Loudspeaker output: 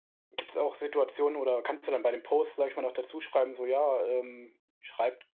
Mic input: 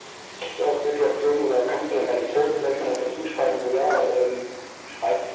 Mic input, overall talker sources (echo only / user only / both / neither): echo only